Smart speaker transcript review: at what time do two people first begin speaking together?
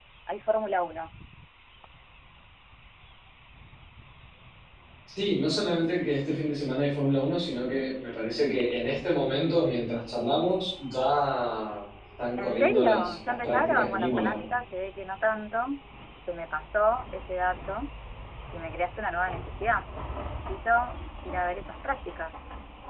12.4 s

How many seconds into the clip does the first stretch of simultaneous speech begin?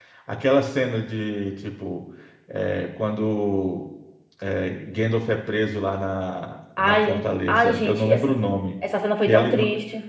6.8 s

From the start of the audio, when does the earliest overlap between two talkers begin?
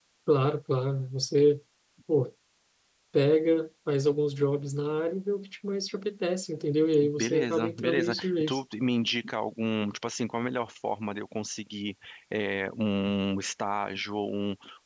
6.9 s

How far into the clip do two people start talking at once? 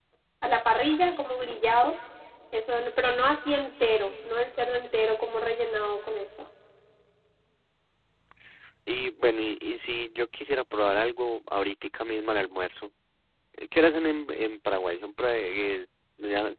none

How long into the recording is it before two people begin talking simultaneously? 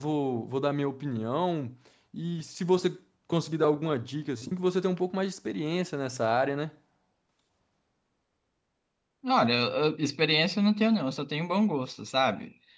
none

